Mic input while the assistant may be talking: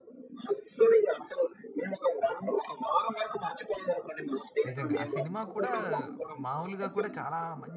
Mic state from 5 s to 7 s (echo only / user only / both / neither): both